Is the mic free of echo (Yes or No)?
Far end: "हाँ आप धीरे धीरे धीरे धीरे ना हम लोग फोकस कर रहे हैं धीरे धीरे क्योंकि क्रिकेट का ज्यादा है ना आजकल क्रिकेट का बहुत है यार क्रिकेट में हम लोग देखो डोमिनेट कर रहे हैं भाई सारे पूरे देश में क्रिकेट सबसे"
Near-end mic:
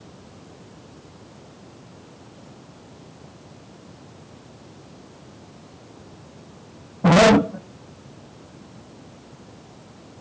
Yes